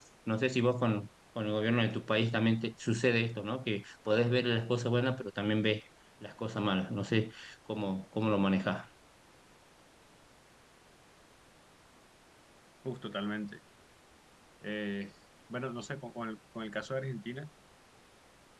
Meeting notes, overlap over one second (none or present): none